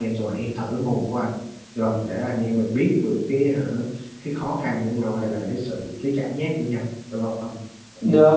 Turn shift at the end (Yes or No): Yes